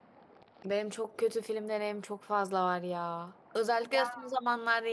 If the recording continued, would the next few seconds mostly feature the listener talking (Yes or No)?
No